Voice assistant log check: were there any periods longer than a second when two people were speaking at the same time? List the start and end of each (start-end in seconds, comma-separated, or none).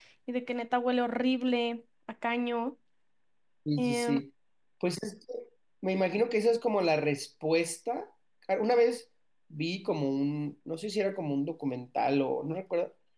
none